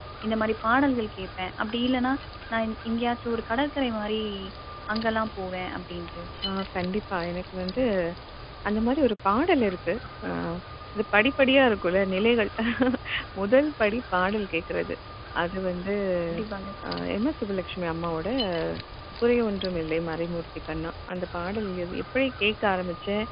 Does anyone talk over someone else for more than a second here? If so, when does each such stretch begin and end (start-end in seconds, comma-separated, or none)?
none